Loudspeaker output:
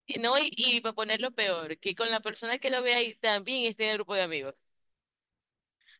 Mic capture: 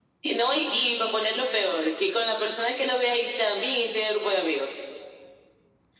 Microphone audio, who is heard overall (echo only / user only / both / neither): echo only